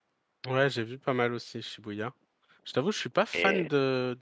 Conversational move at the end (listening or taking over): listening